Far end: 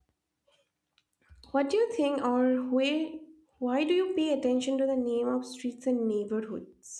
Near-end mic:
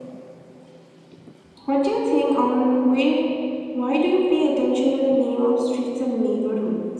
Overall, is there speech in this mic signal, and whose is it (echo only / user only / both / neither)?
echo only